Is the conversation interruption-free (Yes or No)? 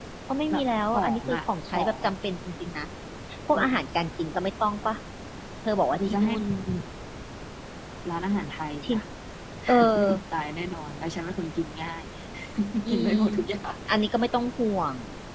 No